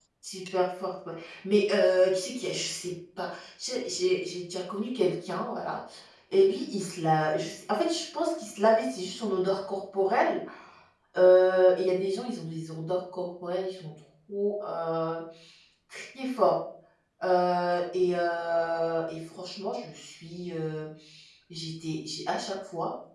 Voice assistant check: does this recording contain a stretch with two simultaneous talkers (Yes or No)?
No